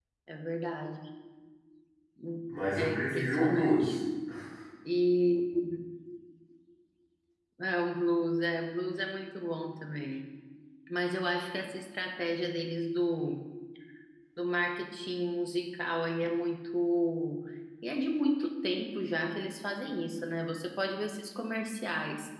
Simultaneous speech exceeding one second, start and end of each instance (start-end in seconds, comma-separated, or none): 2.7-4.0